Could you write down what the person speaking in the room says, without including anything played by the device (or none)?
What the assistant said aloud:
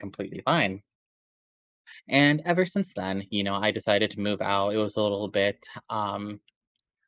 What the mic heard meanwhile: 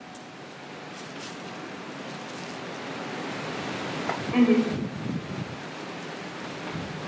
Mhm.